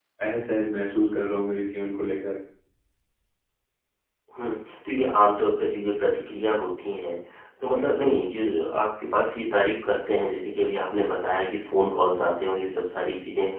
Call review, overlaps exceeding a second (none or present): none